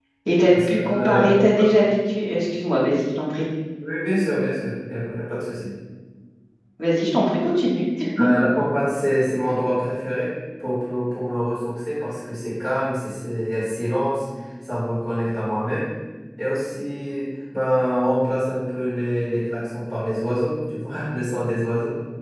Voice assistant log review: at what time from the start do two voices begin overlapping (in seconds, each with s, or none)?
0.5 s